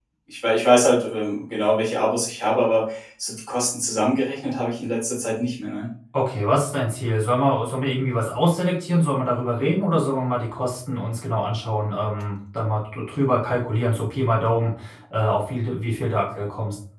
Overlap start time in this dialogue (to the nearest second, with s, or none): none